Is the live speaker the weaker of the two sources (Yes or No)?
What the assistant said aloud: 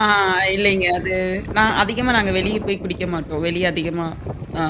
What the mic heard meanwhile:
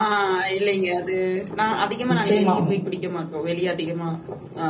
No